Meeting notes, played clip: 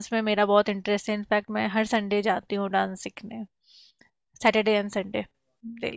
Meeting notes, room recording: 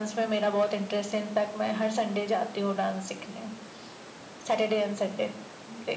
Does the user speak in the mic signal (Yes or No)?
No